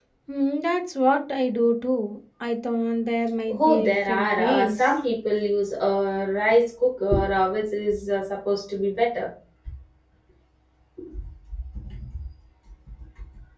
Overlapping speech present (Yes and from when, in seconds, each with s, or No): Yes, from 3.5 s